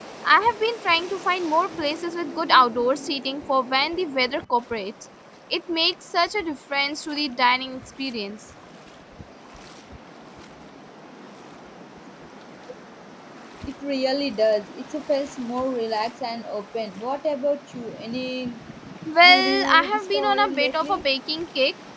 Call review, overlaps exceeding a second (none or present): present